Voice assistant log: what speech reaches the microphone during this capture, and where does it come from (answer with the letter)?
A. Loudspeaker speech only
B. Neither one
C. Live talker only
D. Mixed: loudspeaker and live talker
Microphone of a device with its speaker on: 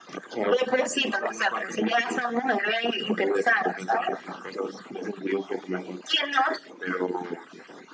A